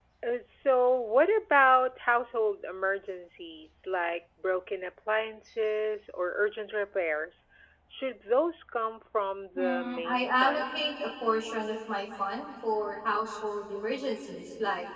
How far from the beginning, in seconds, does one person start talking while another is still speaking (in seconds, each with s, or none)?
9.6 s